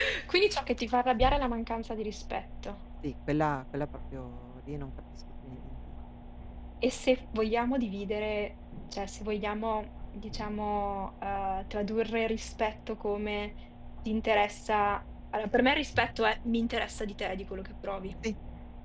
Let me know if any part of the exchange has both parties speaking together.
No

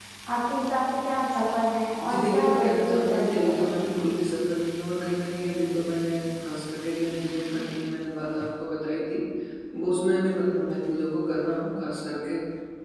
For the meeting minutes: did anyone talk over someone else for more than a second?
Yes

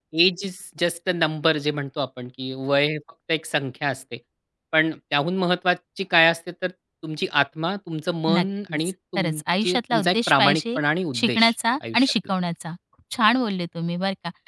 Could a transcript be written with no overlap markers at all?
No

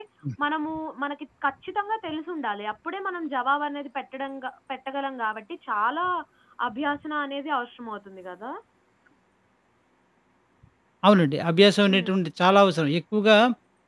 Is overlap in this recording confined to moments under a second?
Yes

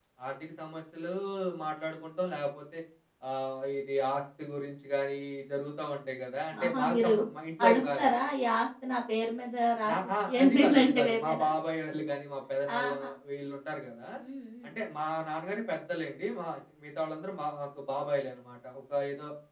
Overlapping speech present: Yes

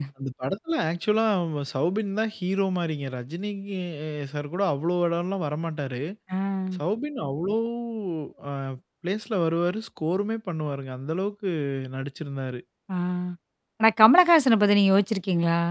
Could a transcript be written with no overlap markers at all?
Yes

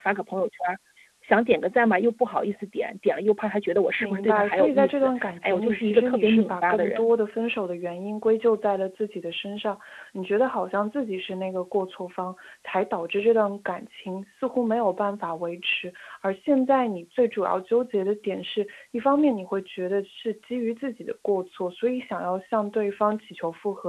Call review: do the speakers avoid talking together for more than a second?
No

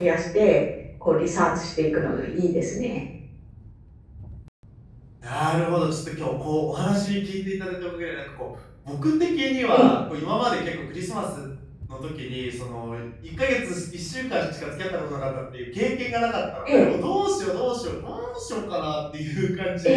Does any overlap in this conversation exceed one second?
No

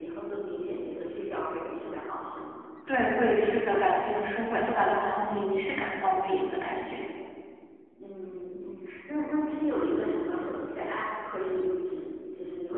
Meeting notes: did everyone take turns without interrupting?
Yes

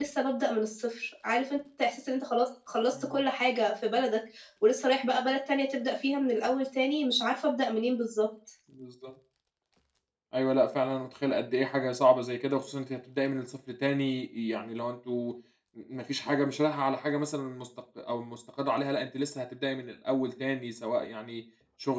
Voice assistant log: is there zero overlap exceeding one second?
Yes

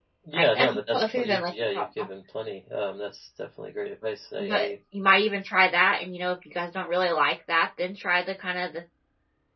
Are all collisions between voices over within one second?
No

